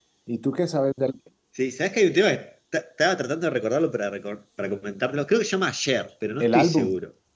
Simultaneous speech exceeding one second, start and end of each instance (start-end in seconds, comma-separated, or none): none